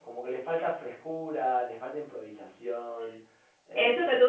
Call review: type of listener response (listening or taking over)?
taking over